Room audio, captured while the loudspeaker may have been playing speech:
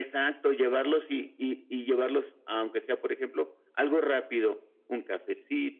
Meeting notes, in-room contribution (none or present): none